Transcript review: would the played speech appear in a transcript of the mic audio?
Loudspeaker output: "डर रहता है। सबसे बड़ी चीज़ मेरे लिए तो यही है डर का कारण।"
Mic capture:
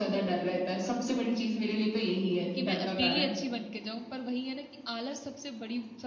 Yes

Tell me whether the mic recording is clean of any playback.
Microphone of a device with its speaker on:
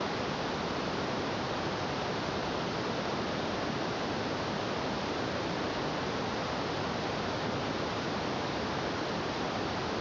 Yes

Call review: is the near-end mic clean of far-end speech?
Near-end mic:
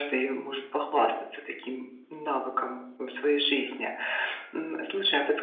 No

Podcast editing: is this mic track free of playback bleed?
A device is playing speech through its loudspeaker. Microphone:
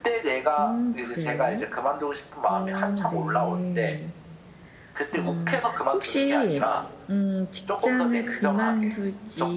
No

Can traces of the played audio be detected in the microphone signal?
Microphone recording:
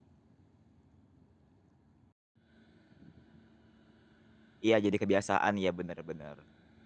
No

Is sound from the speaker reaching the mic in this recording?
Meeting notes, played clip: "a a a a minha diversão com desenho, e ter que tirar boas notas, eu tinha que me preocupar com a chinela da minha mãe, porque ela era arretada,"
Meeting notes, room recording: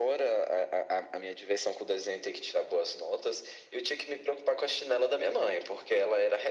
Yes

